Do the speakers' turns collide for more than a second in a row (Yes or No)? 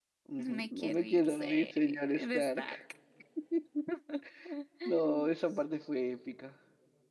Yes